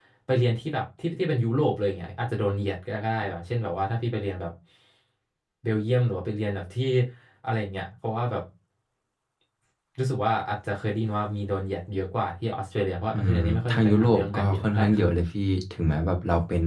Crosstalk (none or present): present